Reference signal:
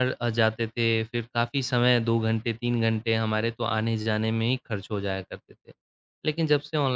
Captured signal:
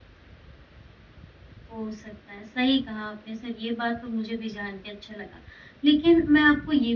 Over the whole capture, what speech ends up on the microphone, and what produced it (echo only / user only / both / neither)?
user only